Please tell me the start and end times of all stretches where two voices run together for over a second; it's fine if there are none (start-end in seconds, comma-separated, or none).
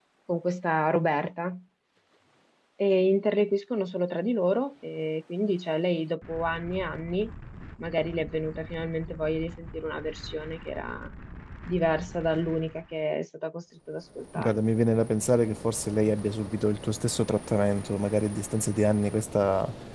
none